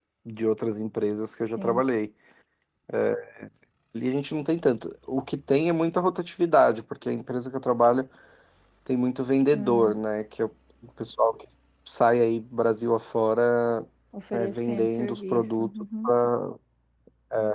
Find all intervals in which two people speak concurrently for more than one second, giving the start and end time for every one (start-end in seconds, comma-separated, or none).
14.3-15.7